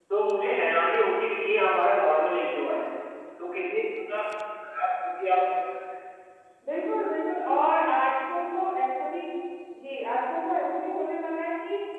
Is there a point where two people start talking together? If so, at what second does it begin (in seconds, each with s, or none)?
none